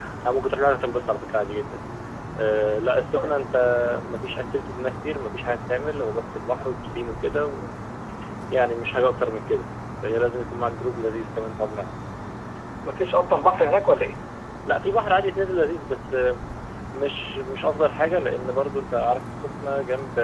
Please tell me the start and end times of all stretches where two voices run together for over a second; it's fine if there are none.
none

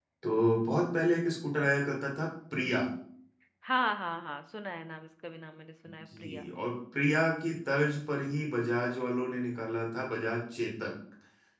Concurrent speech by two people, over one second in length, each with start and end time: none

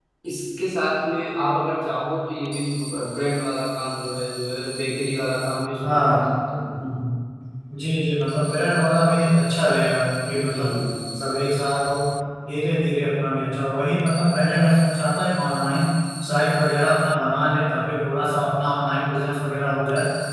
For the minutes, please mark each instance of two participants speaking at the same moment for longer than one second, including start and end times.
none

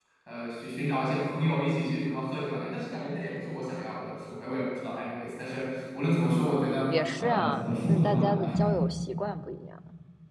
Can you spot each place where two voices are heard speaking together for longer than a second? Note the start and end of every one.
6.9-8.5

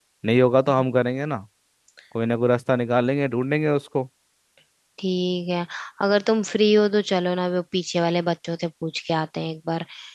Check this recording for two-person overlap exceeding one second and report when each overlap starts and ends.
none

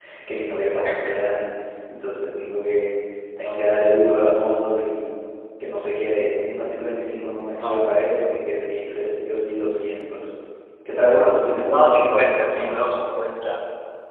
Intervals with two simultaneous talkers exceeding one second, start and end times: 11.7-13.0

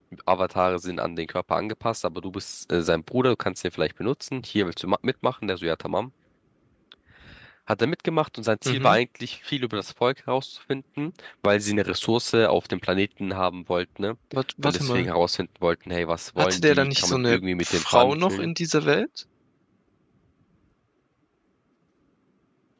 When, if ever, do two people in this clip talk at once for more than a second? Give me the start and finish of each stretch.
16.4-18.5

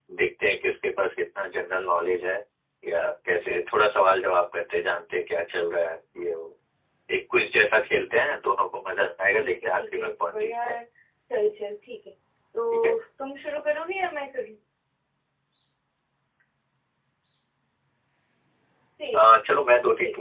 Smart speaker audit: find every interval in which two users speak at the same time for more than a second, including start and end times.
9.4-10.7

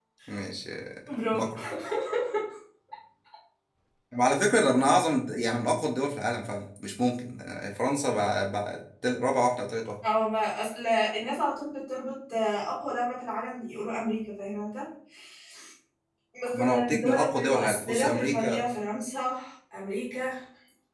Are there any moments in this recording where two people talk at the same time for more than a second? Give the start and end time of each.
16.5-18.7

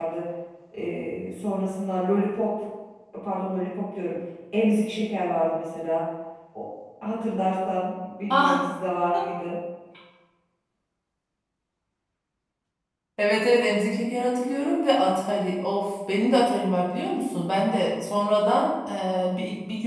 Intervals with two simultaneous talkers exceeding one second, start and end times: none

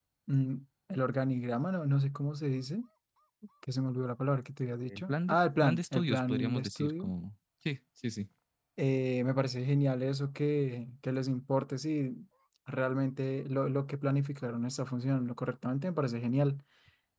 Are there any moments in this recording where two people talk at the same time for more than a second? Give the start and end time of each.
4.9-7.1

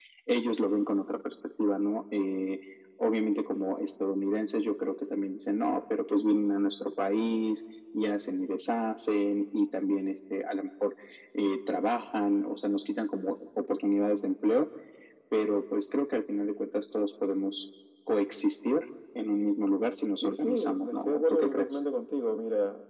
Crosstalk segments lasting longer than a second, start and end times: 20.2-21.8

